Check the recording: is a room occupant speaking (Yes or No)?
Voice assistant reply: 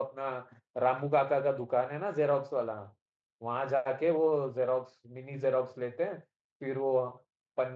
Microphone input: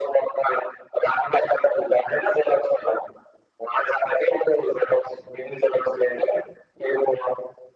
No